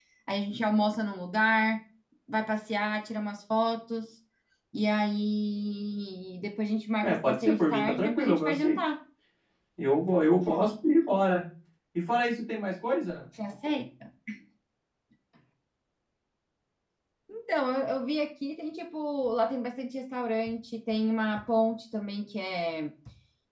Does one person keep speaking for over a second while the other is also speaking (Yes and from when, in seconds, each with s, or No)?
Yes, from 7.0 s